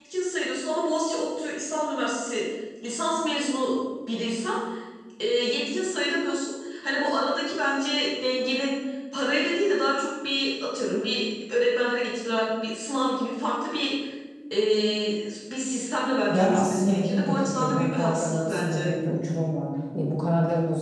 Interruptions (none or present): present